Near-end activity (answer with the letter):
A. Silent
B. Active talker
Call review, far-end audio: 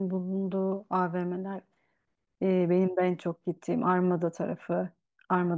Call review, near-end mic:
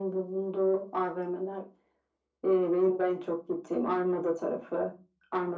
A